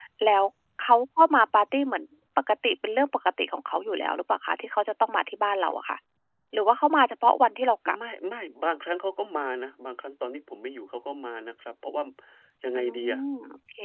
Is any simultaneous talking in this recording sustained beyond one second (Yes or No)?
No